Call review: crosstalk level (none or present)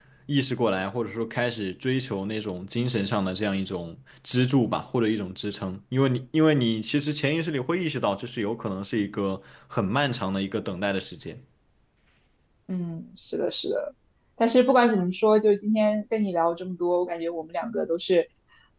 none